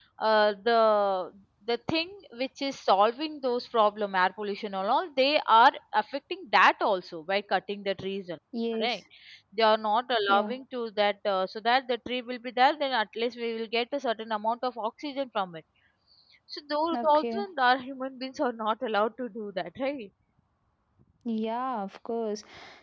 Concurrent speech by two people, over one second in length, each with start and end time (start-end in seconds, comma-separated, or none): none